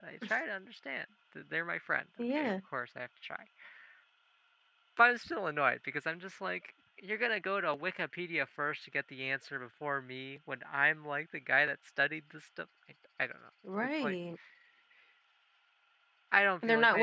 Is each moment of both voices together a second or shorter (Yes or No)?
Yes